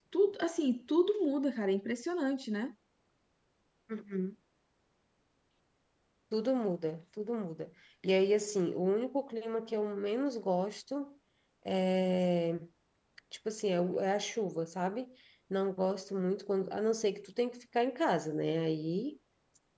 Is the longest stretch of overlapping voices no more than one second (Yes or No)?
Yes